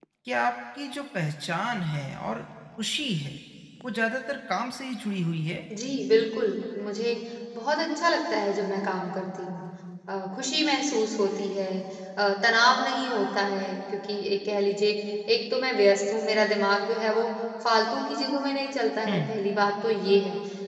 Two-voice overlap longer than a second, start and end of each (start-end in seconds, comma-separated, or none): none